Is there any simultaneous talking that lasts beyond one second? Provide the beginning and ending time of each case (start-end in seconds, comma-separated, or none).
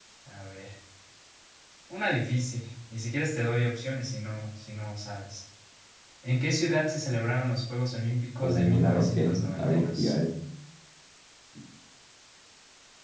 8.4-10.1